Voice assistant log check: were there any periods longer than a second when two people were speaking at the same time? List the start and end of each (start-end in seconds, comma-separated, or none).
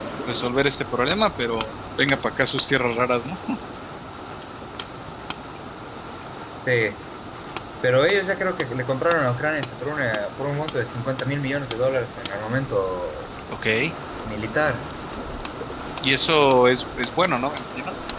none